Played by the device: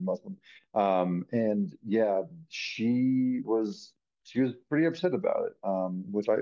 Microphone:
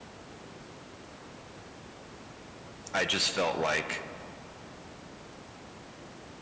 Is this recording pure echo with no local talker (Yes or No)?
No